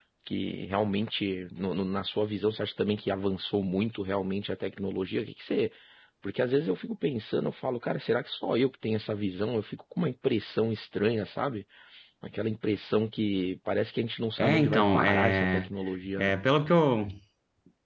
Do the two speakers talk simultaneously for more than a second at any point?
Yes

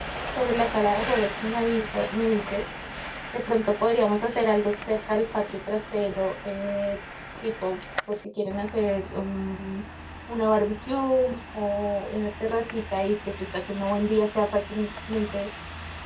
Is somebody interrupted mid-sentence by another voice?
No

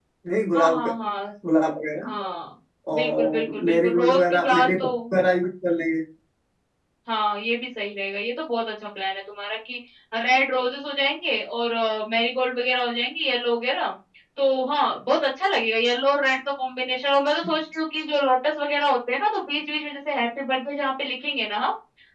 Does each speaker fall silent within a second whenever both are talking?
No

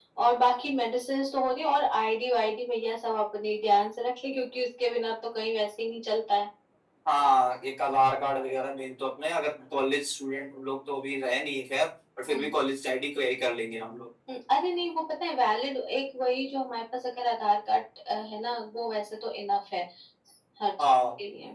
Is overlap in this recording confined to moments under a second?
Yes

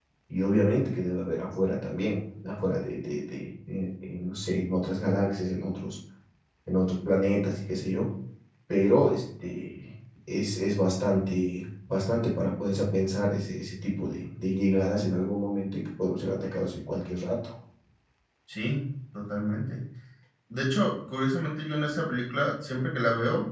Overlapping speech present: No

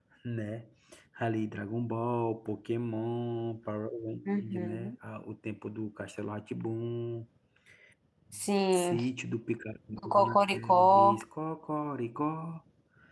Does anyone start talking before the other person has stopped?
Yes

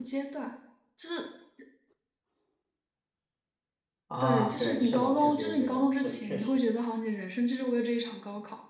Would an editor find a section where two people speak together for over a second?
Yes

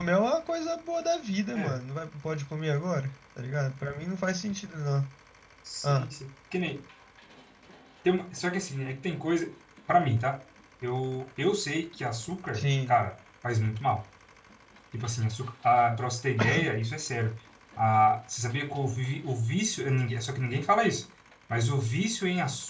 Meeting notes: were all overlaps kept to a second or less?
Yes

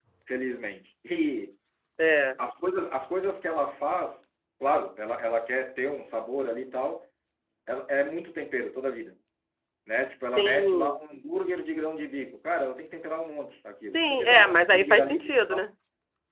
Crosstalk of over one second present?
Yes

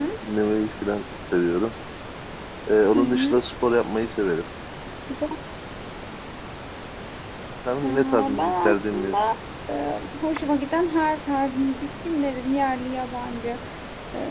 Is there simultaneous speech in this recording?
Yes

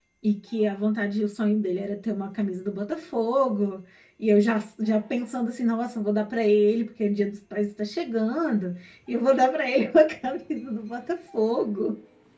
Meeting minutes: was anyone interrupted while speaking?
No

